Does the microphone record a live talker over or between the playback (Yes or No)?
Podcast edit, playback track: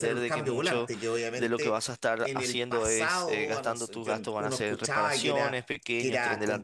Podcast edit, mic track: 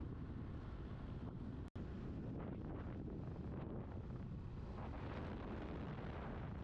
No